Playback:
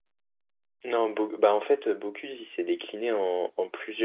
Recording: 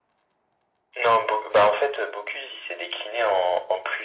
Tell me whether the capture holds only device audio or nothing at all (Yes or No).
Yes